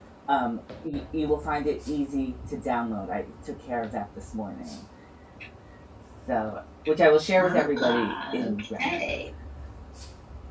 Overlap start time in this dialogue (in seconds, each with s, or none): 7.3 s